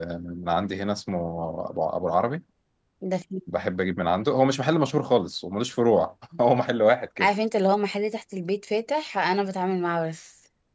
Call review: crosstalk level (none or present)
none